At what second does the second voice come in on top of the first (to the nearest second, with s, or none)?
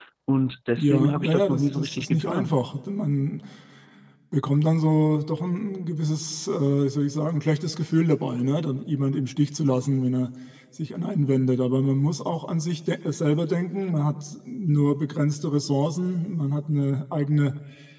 1 s